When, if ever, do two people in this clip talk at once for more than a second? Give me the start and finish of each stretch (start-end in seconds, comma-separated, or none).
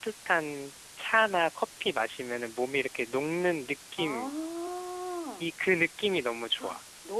none